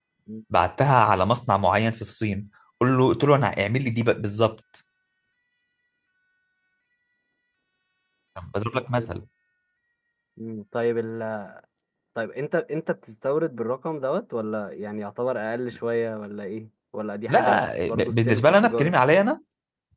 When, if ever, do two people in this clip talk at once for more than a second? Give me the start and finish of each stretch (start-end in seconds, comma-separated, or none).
17.3-18.9